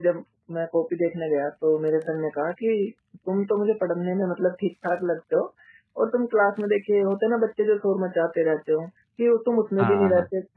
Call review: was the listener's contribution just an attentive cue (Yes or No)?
Yes